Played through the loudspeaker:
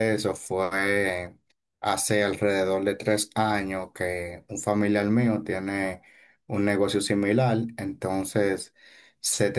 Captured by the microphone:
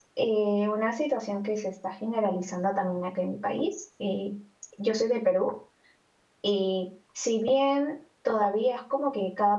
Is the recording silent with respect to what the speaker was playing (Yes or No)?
Yes